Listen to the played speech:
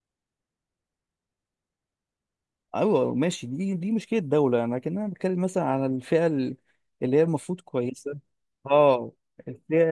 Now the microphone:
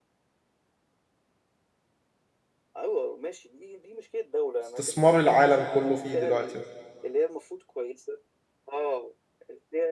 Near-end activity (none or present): present